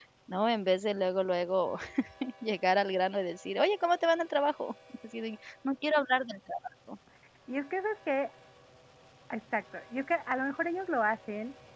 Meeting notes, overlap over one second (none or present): none